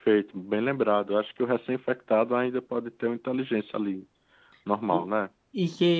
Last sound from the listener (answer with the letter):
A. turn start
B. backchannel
A